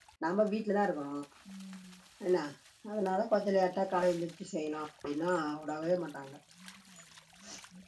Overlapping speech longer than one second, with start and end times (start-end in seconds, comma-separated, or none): none